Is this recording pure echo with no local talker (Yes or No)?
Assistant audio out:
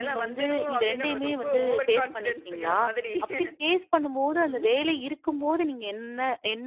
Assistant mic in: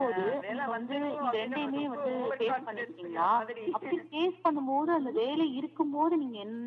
Yes